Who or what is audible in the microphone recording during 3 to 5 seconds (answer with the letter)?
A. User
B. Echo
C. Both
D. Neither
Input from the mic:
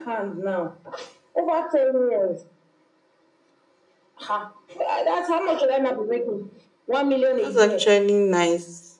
B